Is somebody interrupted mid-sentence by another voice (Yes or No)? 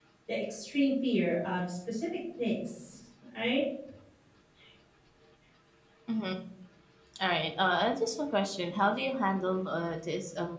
No